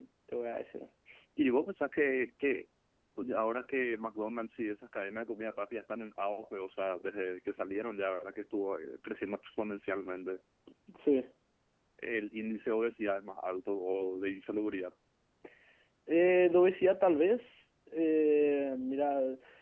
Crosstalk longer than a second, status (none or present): none